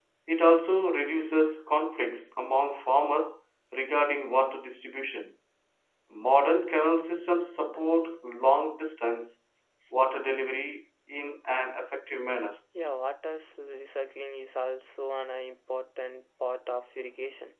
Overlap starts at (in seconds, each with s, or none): none